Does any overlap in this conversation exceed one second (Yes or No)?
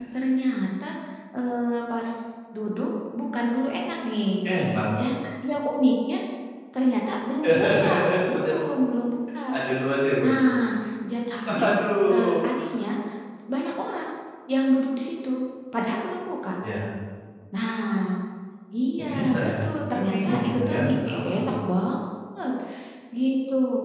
Yes